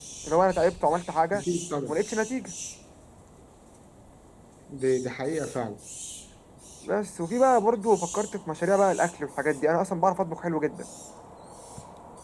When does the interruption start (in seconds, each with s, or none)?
none